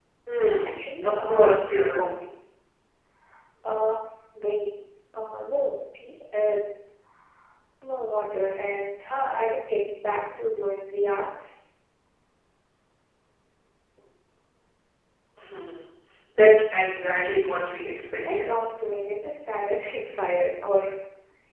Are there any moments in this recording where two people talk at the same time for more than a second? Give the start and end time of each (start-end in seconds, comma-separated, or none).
0.6-2.1